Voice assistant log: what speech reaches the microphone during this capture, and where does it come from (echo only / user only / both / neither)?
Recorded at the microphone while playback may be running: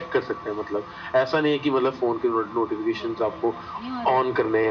both